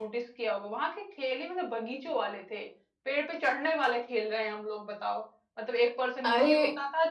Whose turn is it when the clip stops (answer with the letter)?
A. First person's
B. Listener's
A